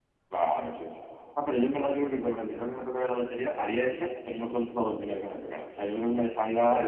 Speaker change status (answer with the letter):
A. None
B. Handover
A